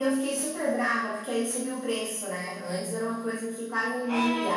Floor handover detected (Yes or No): Yes